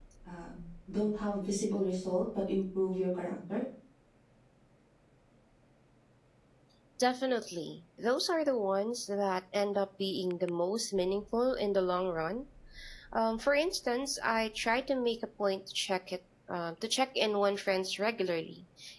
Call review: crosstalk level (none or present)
none